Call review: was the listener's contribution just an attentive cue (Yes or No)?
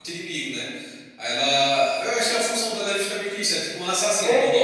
No